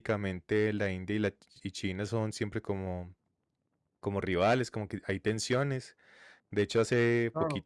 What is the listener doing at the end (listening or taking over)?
listening